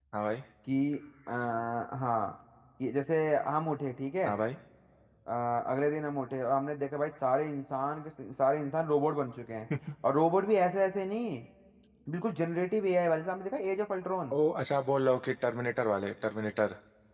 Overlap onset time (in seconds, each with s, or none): none